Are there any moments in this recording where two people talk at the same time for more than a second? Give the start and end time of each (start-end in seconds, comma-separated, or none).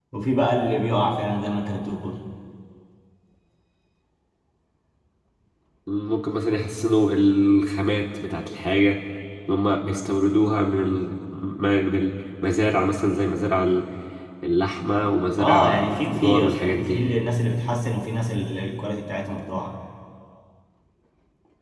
15.4-17.0